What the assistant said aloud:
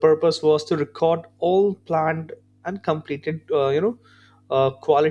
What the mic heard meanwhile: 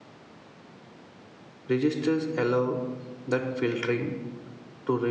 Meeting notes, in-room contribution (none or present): present